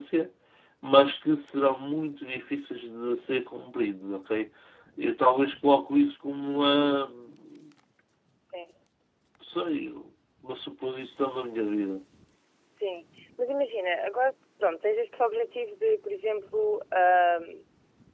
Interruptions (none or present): none